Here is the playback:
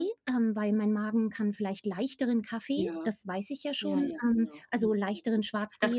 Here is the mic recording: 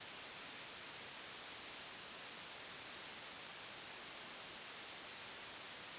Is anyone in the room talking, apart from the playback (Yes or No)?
No